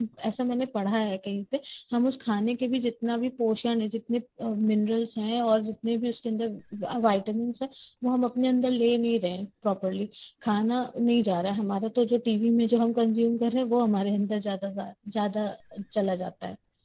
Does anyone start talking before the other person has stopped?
No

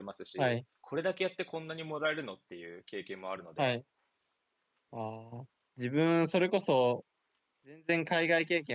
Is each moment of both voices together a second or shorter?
Yes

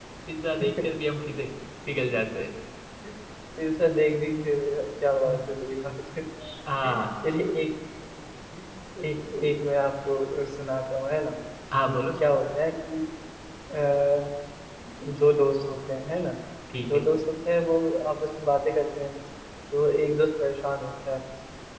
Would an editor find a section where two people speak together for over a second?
No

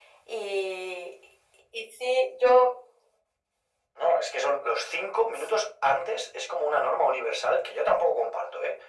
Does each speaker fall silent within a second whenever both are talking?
Yes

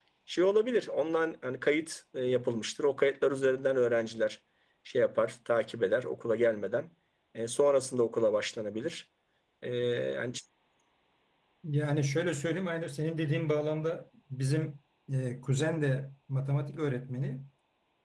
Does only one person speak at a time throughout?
Yes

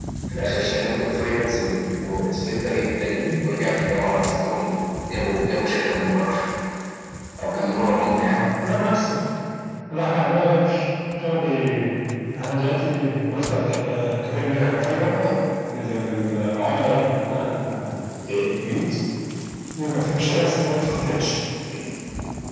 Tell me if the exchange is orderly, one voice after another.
Yes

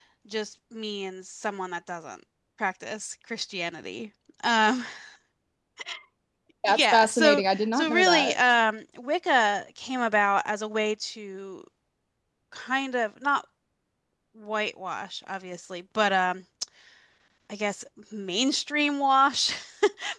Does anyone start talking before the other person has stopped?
Yes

